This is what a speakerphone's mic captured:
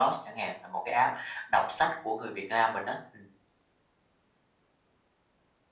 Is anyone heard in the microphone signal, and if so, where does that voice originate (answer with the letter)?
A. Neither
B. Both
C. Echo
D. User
C